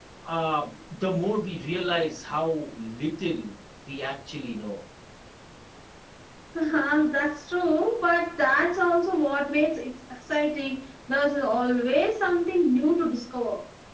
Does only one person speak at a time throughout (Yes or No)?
Yes